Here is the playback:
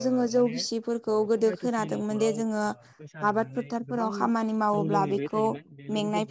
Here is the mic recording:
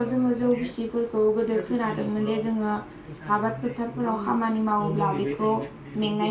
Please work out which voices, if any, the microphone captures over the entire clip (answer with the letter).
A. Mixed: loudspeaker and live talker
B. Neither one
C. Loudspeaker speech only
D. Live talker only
C